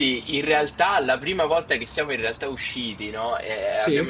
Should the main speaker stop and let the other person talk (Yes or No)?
No